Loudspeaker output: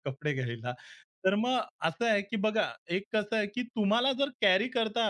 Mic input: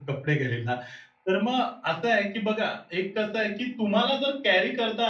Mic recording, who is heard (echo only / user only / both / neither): echo only